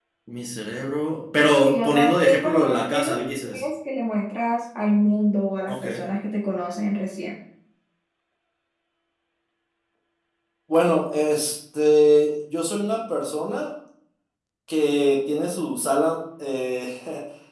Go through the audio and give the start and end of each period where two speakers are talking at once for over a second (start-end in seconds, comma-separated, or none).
1.6-3.6